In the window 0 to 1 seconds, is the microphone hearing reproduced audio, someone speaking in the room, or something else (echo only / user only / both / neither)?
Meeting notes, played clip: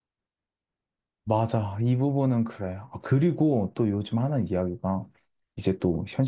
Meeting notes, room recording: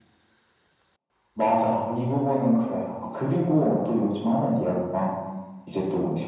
neither